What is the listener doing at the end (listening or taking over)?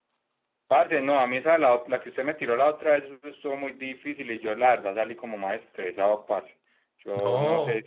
taking over